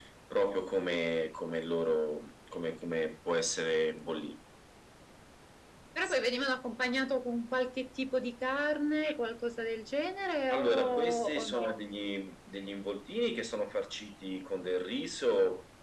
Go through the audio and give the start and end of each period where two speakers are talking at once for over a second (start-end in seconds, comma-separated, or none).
10.5-11.8